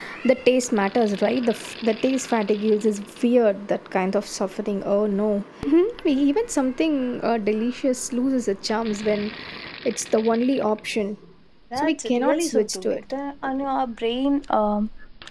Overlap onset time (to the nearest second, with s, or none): 12 s